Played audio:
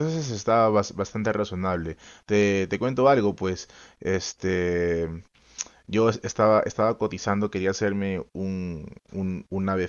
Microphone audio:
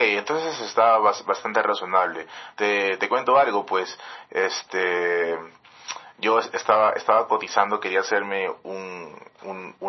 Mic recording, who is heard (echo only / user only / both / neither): echo only